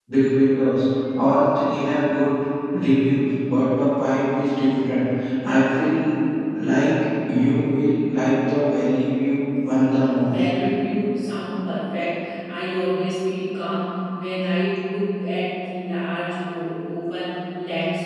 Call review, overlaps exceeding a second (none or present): none